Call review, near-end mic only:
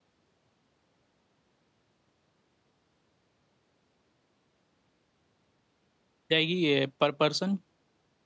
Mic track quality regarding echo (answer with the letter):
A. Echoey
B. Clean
B